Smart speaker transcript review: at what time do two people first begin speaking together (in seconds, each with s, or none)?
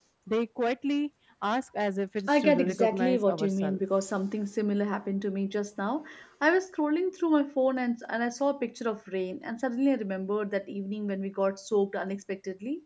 2.3 s